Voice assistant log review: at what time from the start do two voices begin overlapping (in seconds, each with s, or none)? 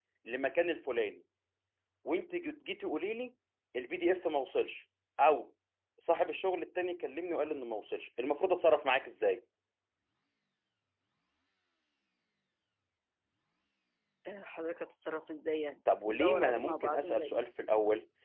15.9 s